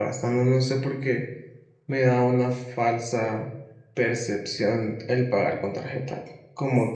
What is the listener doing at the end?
listening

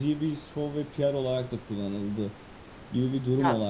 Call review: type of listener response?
listening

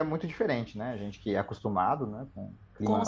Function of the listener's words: taking over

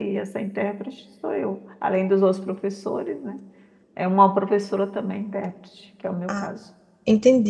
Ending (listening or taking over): taking over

